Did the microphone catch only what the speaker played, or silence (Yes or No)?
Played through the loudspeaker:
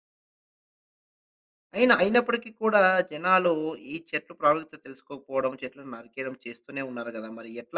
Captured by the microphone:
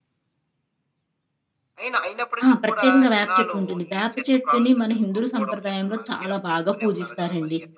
No